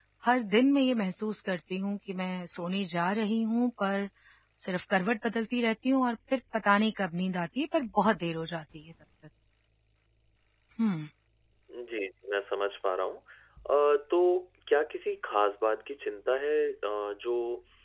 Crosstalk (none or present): none